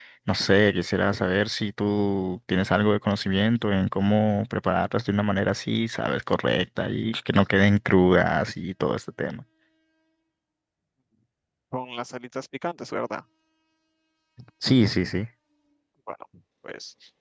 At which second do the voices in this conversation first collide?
none

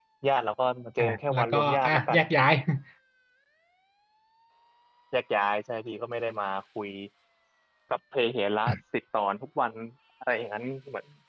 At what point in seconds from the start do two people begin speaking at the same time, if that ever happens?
1.0 s

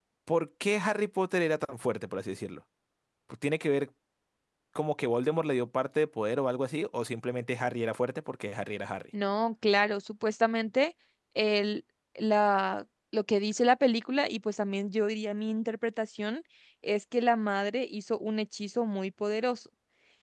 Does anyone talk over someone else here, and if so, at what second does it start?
none

